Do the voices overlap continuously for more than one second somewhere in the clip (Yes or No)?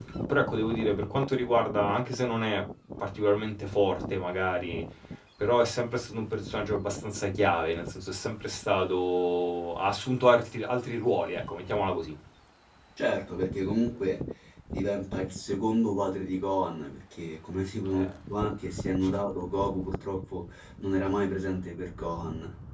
No